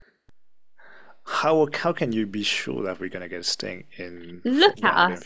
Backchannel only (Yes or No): No